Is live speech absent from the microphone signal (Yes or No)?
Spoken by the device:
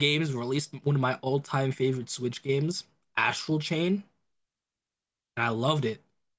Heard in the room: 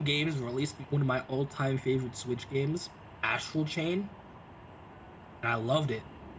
Yes